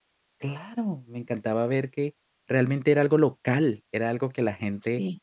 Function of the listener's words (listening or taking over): listening